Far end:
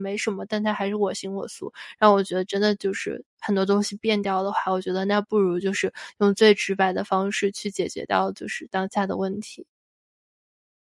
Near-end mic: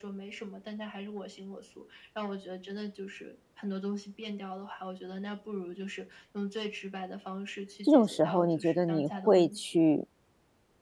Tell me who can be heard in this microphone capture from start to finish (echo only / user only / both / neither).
both